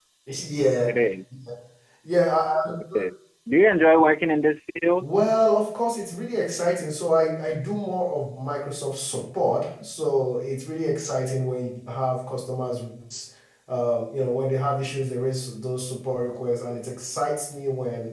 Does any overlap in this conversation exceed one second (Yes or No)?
No